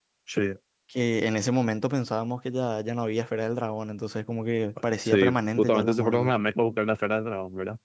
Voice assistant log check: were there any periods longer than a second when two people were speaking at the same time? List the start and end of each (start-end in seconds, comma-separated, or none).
5.0-6.3